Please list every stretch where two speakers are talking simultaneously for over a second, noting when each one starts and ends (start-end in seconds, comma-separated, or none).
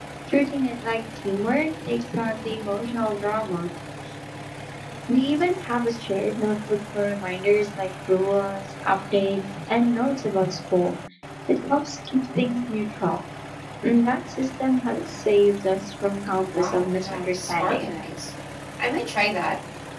16.5-17.9